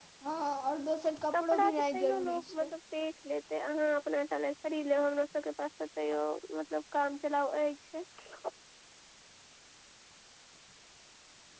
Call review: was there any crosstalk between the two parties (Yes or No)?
Yes